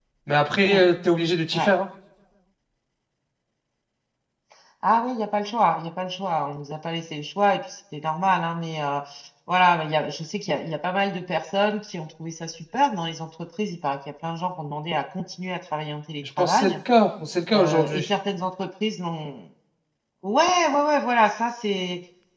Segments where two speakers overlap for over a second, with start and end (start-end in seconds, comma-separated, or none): none